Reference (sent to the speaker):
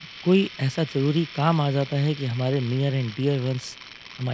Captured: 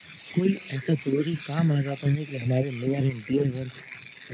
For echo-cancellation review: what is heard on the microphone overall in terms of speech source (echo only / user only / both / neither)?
echo only